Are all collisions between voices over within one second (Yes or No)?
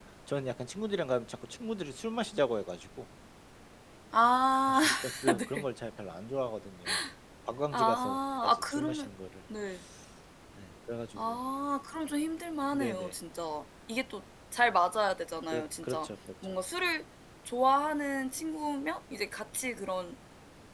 No